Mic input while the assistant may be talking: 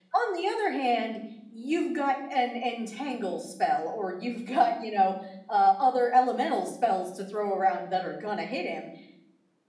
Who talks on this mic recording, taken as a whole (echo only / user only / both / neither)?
echo only